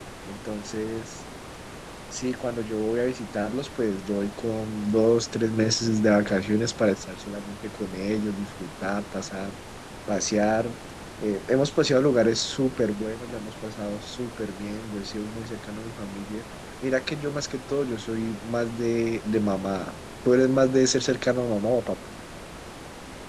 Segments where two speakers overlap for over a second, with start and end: none

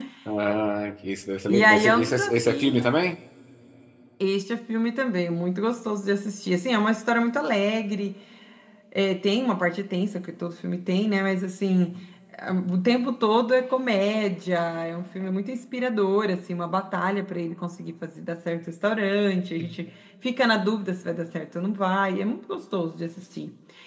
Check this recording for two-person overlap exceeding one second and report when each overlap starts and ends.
1.5-3.0

